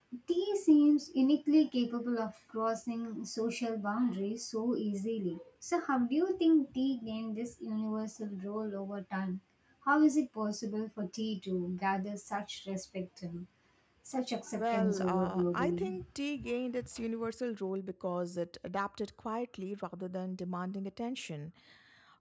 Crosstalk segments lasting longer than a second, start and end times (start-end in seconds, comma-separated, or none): 14.6-16.0